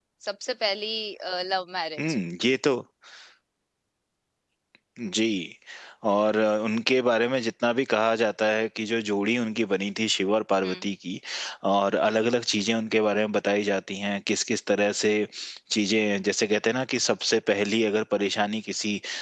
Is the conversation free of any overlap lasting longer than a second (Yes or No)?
Yes